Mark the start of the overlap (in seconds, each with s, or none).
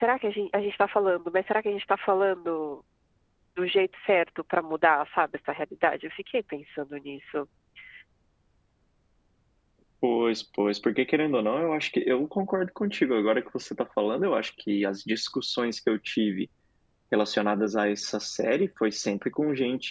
none